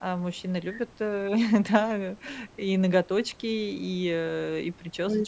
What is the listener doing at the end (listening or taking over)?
taking over